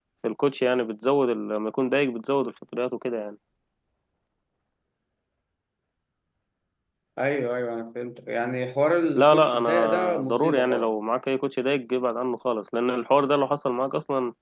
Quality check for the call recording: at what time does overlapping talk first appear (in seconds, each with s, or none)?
9.2 s